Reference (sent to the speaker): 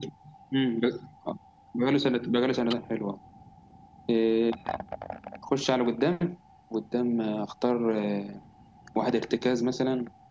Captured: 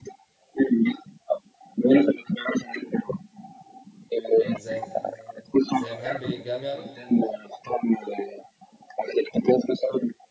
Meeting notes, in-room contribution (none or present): present